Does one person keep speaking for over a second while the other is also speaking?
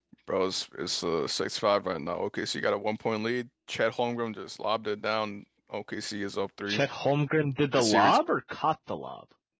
No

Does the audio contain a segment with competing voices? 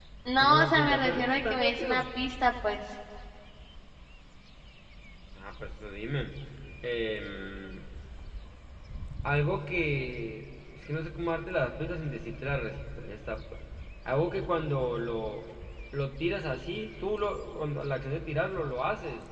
Yes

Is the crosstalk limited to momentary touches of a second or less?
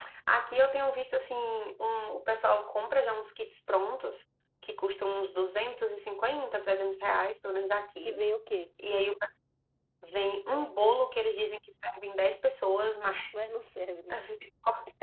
Yes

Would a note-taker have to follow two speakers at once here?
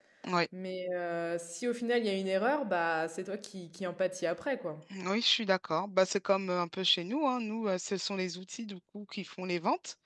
No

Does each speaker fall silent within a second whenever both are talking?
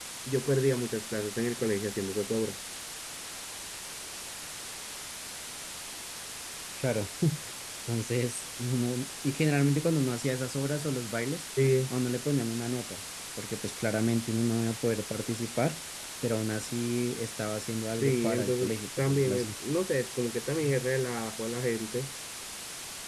No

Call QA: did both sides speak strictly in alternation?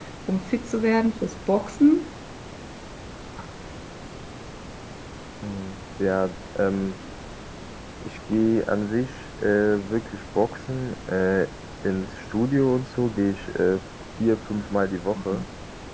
Yes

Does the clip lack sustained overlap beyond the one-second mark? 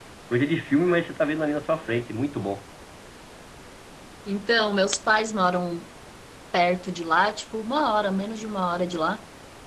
Yes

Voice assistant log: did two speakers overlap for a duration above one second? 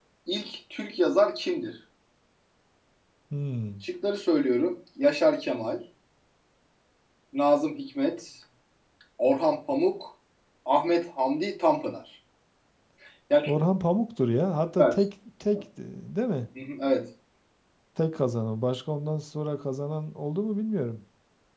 No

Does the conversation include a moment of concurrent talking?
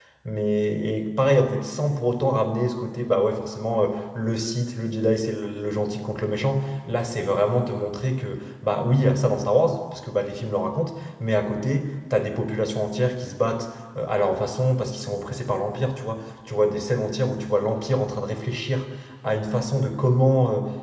No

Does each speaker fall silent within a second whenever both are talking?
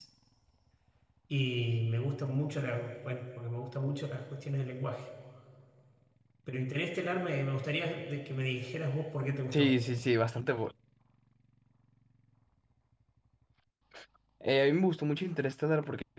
Yes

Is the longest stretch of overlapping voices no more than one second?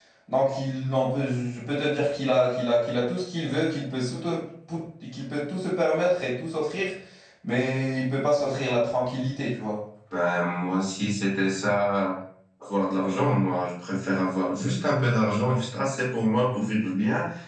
Yes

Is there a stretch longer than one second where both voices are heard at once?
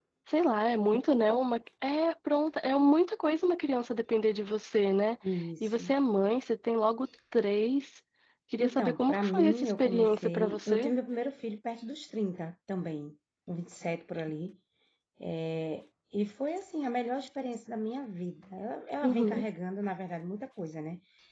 Yes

